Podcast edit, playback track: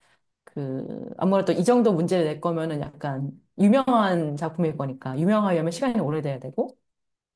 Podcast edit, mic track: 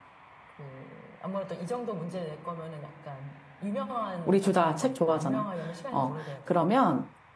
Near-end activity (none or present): present